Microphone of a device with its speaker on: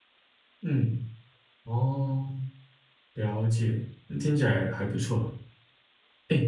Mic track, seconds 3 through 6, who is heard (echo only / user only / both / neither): user only